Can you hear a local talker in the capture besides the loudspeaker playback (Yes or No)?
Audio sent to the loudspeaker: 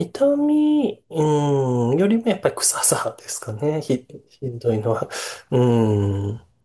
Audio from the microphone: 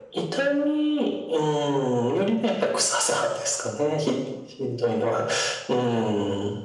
No